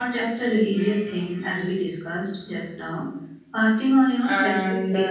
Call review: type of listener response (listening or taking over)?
taking over